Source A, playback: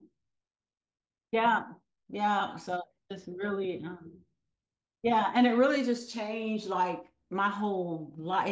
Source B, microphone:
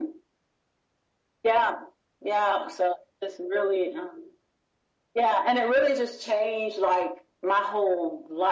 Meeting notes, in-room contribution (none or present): none